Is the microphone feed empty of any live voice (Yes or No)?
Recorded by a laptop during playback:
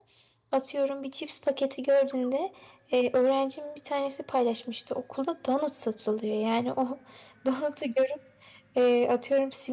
No